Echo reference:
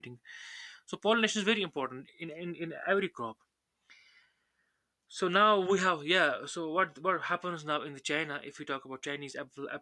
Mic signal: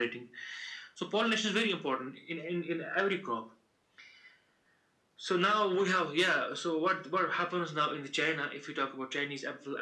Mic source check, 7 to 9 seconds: echo only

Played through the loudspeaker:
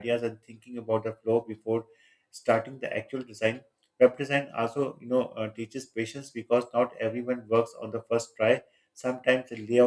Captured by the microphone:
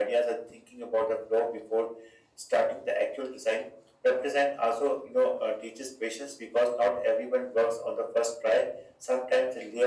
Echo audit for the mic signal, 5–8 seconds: echo only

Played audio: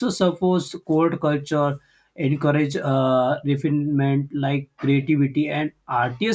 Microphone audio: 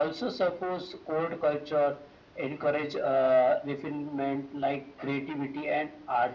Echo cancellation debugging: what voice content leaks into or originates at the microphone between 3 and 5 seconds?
echo only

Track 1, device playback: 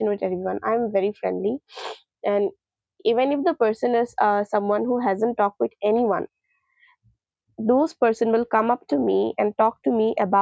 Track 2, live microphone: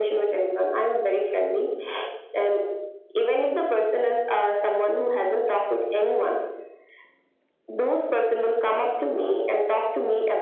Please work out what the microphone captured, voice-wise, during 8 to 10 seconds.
echo only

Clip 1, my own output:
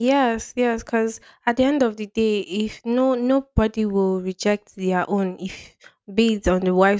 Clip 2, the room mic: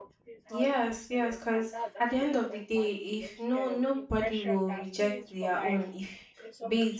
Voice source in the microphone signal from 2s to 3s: both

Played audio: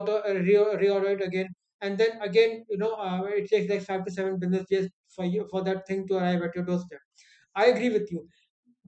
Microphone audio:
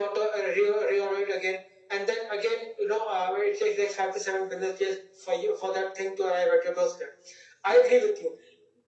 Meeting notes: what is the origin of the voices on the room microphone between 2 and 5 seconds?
echo only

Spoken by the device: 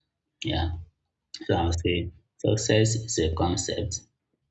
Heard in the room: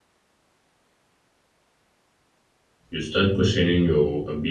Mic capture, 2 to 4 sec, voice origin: user only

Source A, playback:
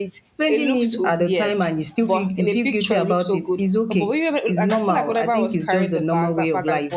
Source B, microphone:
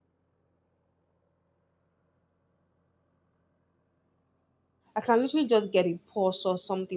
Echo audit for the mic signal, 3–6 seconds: user only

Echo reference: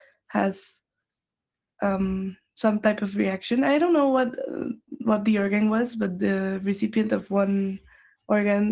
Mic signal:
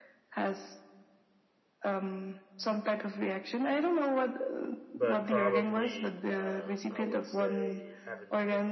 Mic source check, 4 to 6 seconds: both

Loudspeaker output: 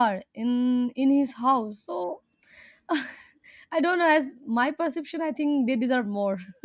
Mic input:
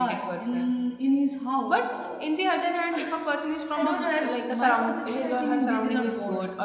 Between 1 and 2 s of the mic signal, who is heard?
both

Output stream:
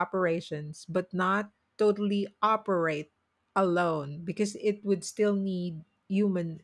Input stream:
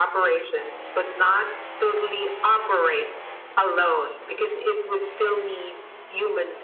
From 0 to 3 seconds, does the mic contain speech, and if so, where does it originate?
echo only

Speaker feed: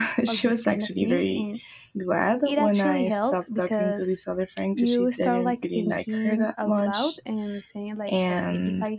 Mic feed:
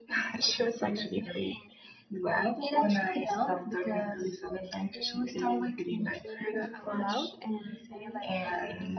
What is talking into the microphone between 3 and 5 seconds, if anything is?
echo only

